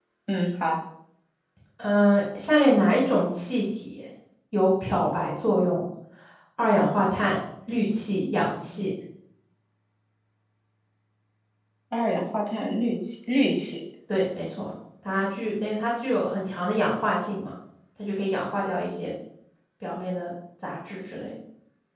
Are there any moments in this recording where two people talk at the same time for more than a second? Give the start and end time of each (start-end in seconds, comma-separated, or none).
none